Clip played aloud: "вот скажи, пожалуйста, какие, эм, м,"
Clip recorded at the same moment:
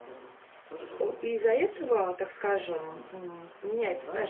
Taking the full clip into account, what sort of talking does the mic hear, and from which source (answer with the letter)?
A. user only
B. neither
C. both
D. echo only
C